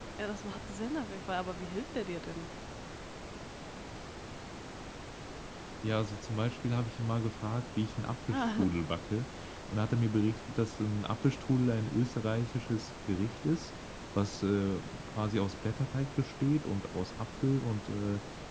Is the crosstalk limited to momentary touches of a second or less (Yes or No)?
Yes